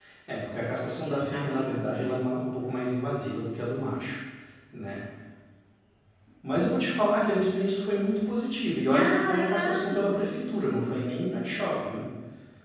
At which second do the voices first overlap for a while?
1.0 s

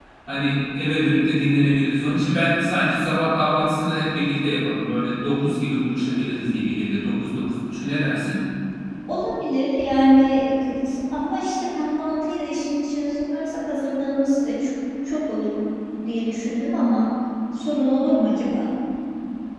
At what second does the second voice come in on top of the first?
none

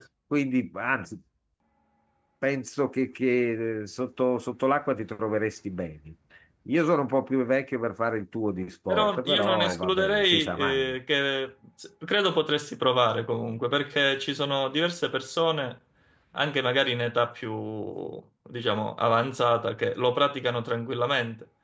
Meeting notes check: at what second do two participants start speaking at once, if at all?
8.9 s

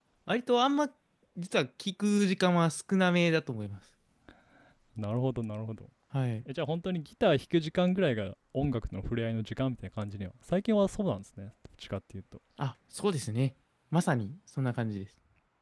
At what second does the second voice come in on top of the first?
none

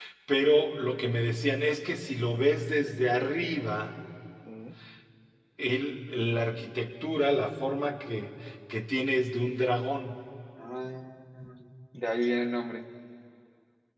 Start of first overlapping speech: none

